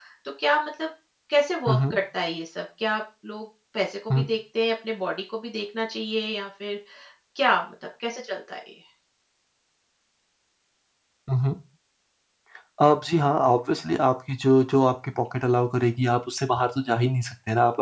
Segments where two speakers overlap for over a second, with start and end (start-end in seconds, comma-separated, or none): none